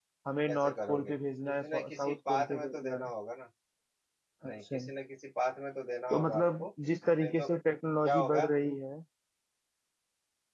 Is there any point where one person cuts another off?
Yes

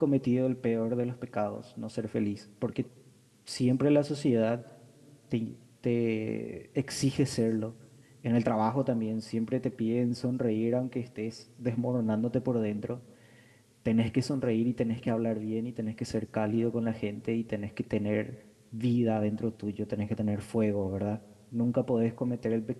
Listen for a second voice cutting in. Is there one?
No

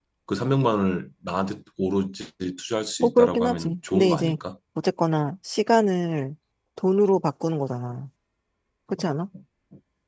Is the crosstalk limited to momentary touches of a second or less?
No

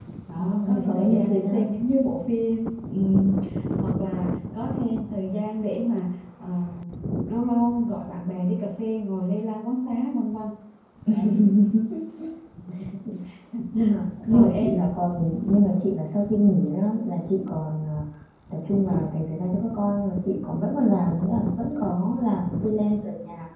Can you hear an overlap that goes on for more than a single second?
Yes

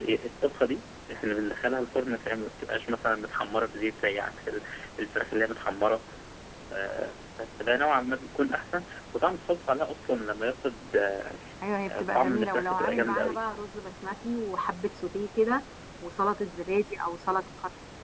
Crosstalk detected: Yes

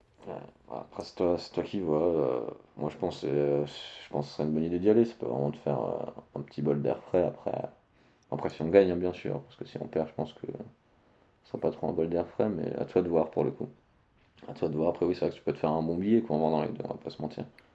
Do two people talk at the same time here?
No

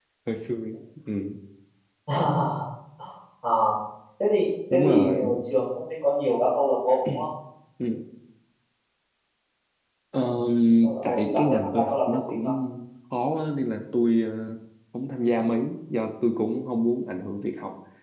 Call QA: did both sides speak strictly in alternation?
No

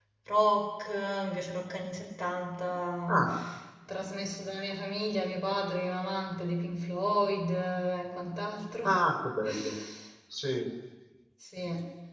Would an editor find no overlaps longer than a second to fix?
Yes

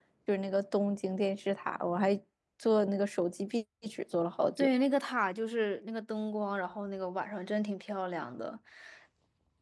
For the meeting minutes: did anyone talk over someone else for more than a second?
No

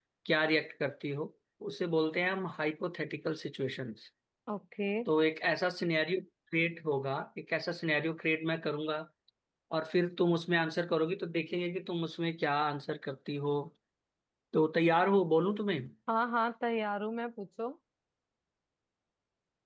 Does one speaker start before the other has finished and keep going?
No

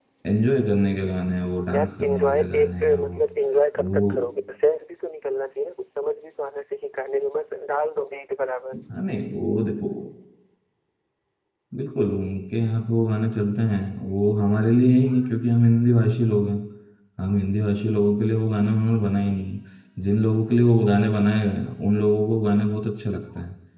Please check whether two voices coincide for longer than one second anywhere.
Yes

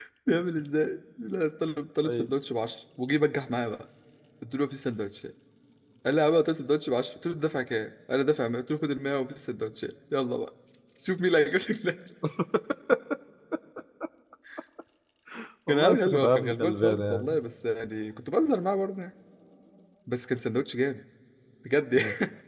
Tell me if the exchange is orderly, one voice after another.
No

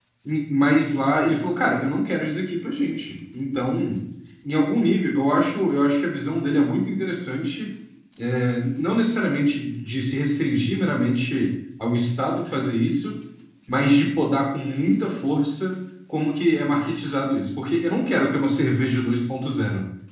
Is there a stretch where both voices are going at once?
No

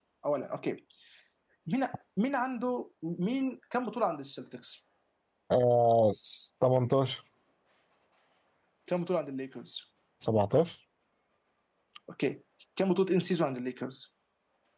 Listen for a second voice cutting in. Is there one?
No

